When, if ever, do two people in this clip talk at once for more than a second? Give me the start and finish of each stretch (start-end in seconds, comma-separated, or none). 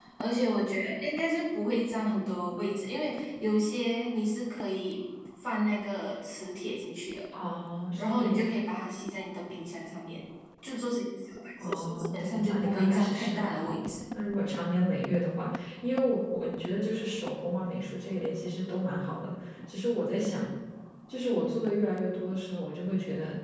11.6-13.9